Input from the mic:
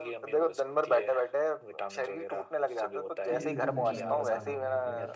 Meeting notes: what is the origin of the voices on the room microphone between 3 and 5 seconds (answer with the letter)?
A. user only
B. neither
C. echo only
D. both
D